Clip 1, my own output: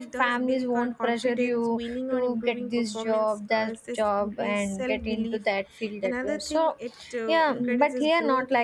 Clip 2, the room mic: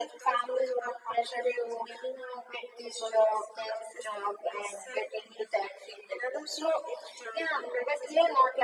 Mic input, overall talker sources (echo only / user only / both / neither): echo only